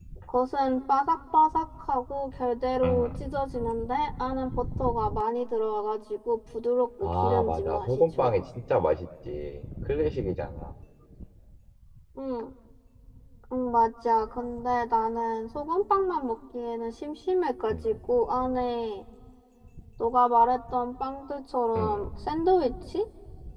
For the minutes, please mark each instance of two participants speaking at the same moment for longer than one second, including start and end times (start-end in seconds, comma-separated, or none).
7.0-8.3